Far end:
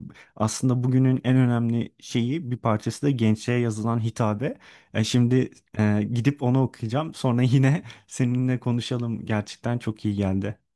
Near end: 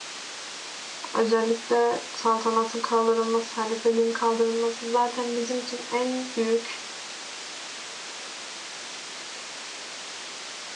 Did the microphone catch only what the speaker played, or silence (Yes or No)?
No